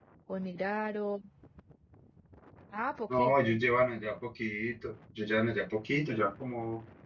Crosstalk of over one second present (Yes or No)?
No